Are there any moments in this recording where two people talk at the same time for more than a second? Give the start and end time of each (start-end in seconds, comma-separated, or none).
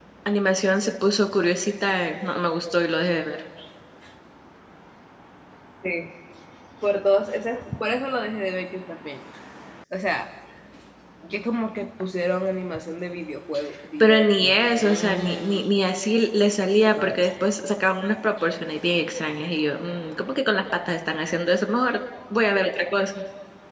14.0-15.6